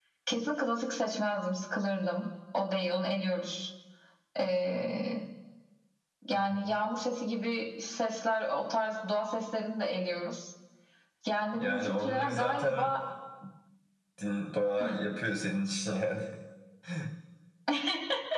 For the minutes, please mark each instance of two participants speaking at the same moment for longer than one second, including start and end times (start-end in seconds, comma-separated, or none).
11.5-12.9